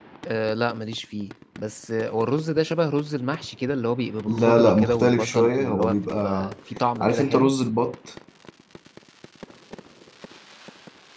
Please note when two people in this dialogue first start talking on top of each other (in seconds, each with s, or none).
4.3 s